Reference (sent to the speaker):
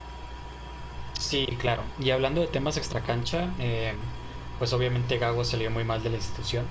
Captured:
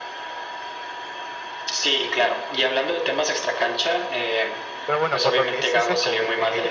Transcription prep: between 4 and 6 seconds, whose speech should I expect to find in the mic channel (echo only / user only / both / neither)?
both